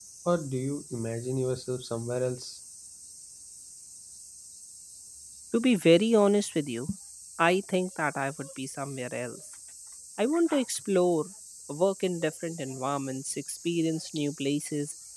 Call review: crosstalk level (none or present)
none